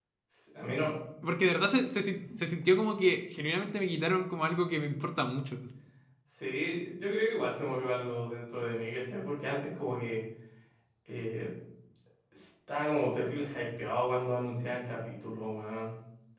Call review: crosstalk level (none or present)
none